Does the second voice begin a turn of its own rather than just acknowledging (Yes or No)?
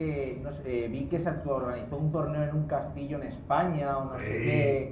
No